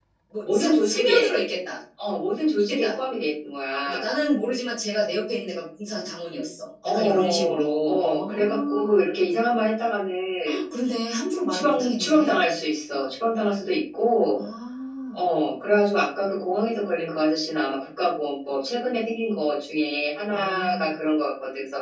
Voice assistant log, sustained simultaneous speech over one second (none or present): present